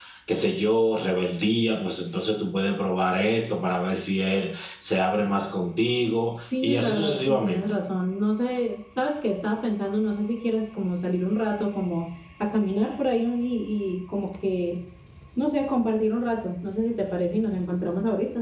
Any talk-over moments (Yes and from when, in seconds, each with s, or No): Yes, from 6.4 s